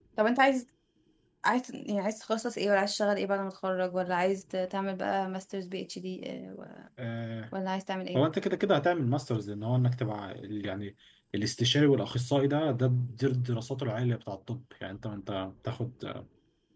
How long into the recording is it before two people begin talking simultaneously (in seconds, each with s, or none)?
none